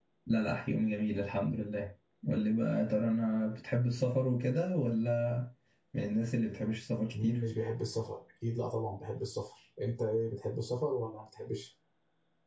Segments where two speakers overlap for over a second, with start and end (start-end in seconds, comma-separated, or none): none